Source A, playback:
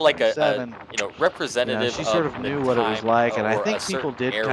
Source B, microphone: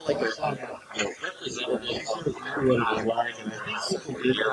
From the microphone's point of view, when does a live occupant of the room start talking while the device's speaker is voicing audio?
none

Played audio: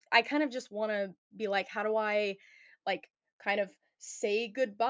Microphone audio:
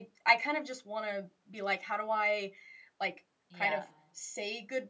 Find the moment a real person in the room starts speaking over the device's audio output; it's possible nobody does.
3.5 s

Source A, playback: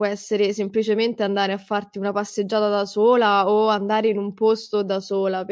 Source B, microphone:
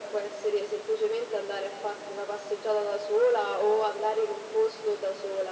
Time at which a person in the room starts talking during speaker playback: none

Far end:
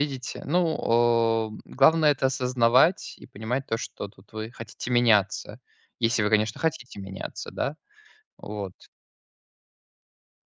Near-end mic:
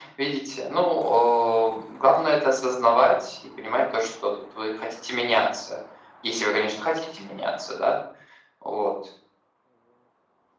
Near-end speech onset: none

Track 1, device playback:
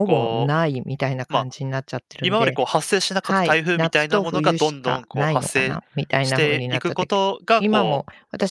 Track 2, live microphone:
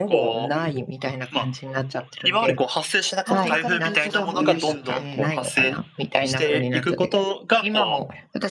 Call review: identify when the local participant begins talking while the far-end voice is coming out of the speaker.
3.3 s

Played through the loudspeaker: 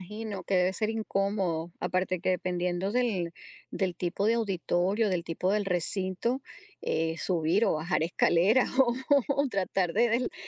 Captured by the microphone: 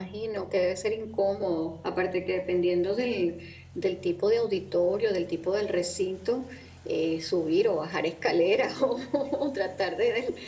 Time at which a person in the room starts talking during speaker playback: none

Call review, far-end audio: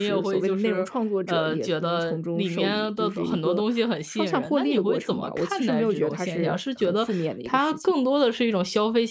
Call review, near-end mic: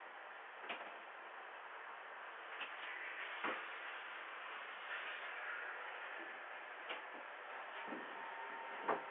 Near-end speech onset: none

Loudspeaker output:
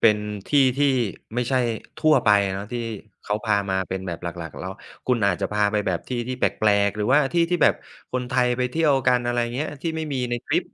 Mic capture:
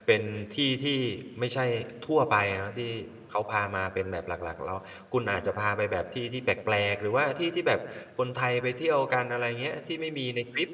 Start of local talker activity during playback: none

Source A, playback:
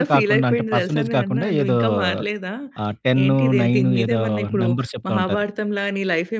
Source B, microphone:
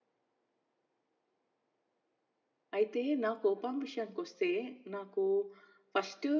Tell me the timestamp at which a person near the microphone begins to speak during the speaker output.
2.8 s

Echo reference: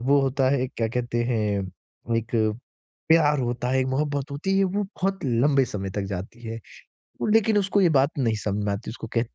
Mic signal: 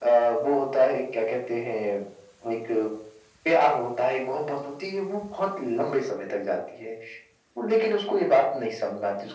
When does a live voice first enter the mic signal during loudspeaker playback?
none

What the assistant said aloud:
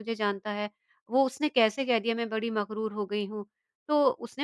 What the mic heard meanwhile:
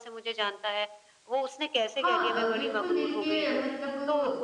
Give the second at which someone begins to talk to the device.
1.9 s

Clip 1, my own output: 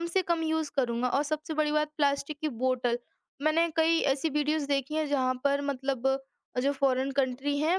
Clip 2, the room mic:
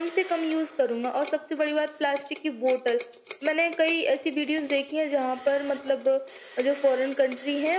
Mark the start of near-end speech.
none

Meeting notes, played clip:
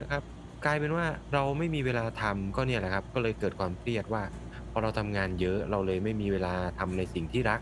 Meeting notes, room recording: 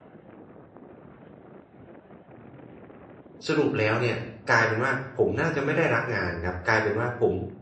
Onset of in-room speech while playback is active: 3.5 s

